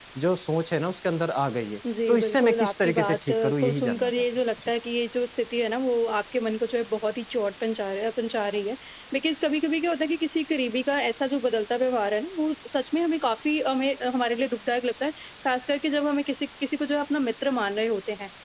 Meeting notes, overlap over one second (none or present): present